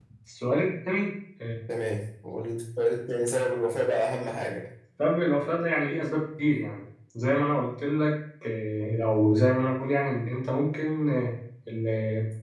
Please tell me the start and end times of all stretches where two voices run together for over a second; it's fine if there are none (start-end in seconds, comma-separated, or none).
none